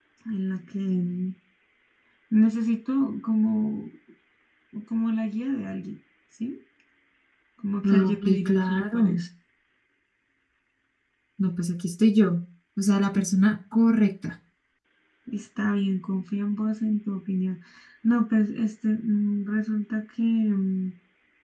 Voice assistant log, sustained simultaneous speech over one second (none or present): present